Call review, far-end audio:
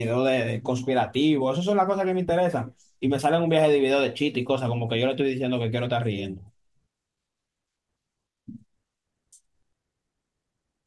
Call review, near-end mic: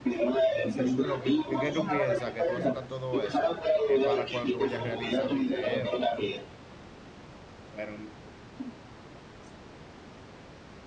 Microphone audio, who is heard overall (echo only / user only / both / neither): both